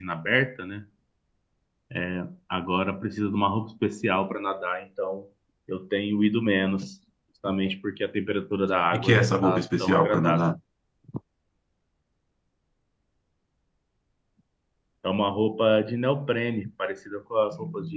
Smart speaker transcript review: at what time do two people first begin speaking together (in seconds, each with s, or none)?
8.9 s